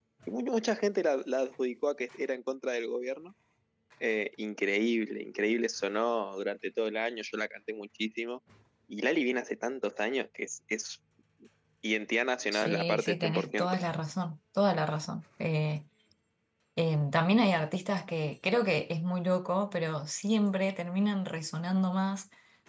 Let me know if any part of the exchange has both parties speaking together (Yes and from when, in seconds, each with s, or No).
Yes, from 12.5 s